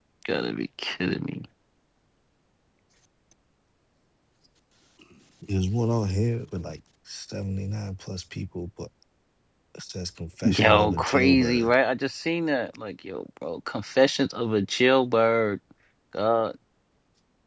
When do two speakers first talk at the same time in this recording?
10.4 s

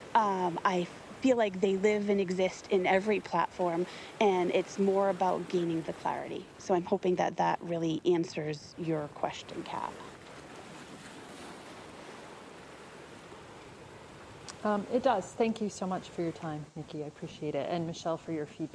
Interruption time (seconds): none

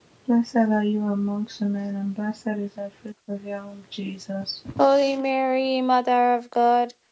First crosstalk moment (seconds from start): none

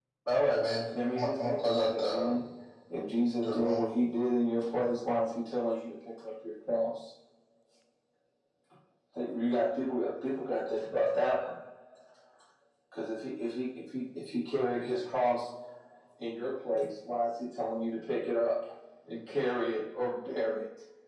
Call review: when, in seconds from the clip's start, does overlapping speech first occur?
1.1 s

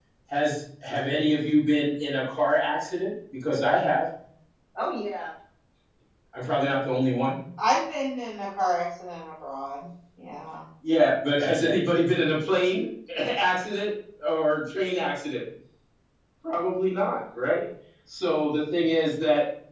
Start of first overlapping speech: none

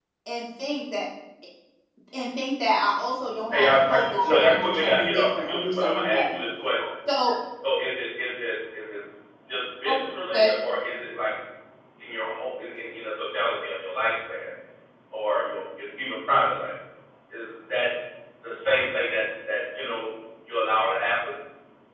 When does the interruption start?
3.5 s

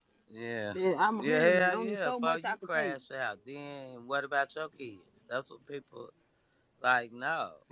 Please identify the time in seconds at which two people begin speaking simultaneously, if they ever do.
1.2 s

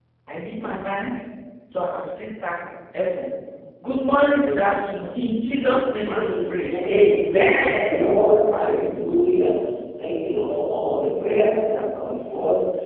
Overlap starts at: 6.1 s

